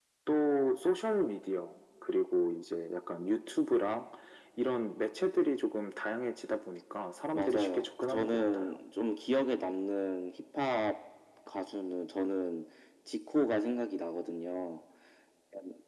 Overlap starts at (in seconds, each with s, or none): 7.3 s